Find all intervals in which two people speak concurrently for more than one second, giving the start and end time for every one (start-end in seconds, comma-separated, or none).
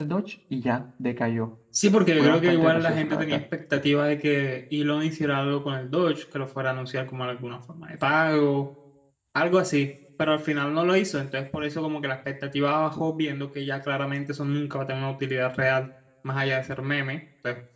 2.2-3.4